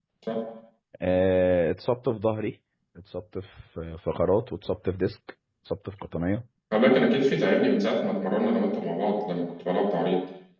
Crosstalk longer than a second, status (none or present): none